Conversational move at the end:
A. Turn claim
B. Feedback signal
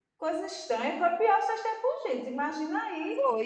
B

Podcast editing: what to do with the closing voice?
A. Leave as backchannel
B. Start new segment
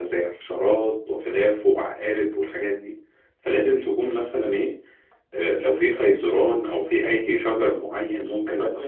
B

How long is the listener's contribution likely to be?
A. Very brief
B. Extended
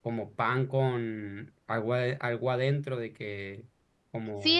B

